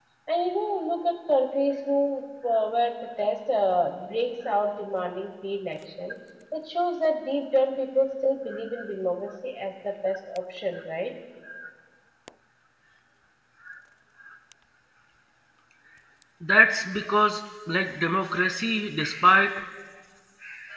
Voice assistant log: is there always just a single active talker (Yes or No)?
Yes